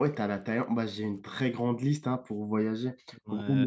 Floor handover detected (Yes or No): Yes